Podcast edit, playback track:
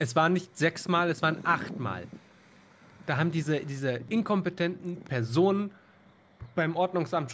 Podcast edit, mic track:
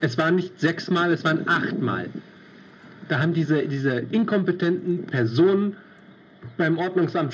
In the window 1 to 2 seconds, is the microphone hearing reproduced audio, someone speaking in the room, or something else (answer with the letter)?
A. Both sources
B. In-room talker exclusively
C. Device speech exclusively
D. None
C